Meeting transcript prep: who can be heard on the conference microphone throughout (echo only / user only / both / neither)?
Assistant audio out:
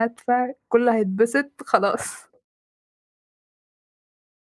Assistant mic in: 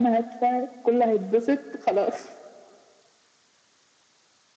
echo only